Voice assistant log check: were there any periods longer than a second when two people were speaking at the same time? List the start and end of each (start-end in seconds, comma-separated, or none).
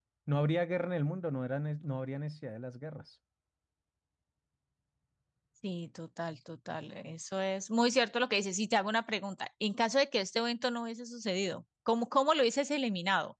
none